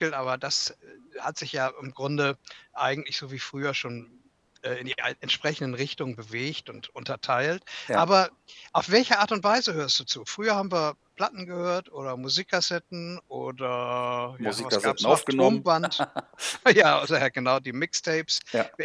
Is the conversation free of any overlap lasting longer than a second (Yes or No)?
No